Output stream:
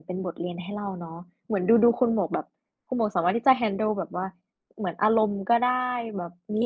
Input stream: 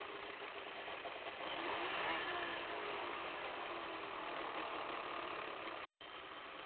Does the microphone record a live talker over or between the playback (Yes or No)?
No